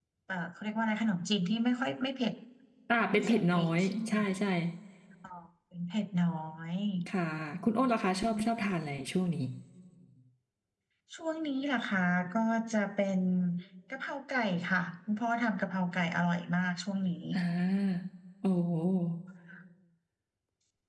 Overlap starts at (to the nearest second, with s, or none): 3 s